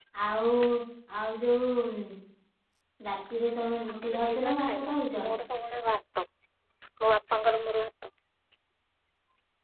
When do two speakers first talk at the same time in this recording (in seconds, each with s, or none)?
3.9 s